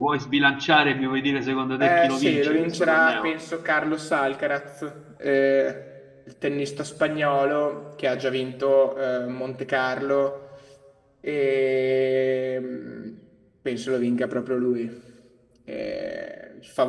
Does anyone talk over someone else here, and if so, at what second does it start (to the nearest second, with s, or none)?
2 s